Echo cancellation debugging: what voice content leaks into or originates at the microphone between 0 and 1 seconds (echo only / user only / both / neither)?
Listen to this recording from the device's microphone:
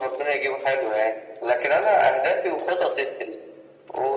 echo only